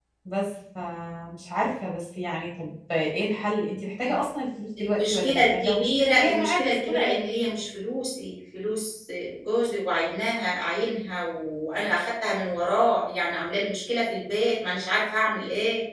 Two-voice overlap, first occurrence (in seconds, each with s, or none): 4.8 s